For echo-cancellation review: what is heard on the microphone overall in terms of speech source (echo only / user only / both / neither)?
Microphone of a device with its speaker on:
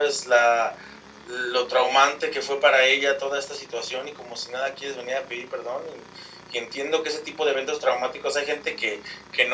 echo only